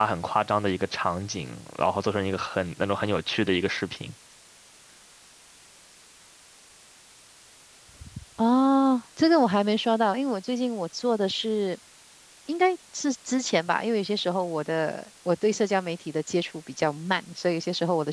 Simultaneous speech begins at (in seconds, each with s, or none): none